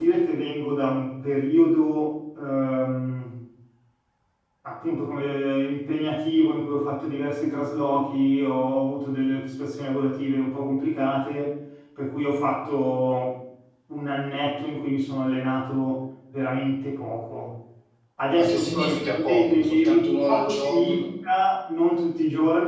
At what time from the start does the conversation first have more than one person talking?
18.4 s

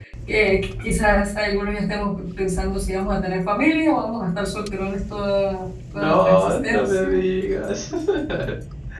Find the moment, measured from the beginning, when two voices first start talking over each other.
5.9 s

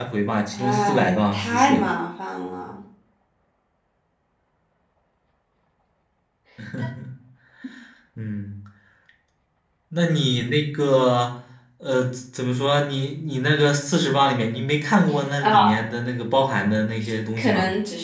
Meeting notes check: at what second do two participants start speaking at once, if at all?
0.5 s

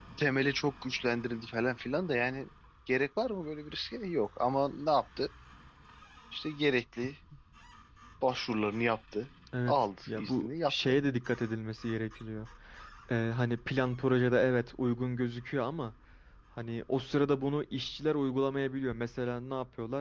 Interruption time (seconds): 9.5 s

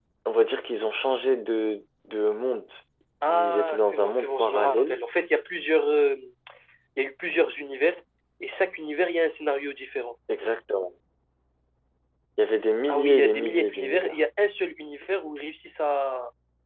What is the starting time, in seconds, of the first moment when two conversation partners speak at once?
3.3 s

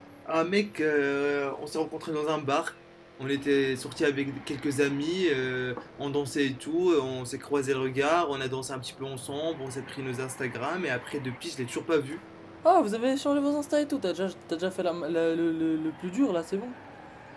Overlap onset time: none

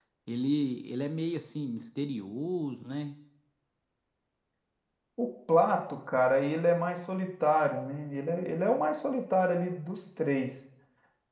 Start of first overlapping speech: none

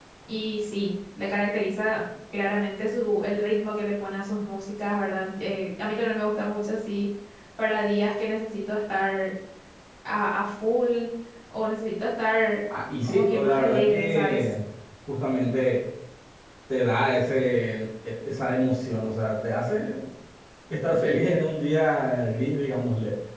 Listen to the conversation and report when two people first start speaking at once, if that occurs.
13.0 s

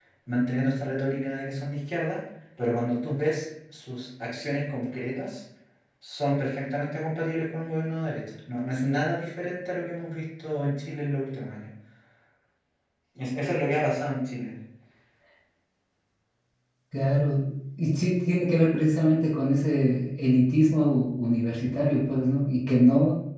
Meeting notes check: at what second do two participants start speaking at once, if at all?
none

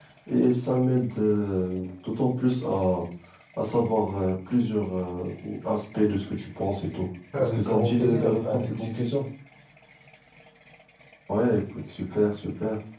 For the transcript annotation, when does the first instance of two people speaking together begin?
7.3 s

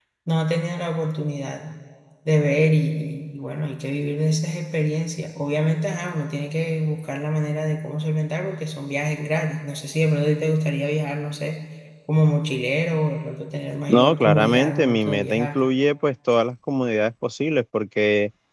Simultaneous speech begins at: 13.9 s

